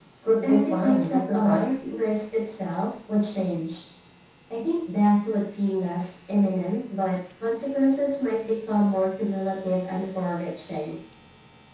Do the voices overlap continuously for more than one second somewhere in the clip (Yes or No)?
Yes